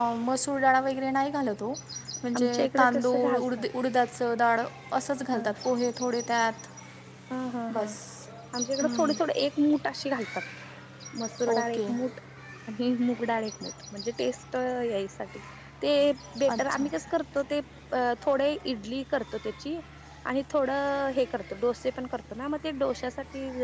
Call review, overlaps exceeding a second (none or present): present